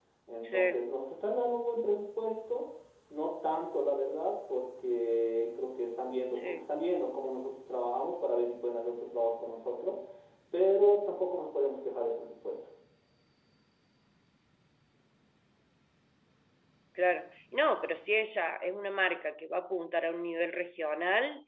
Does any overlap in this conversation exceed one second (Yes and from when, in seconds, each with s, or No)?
No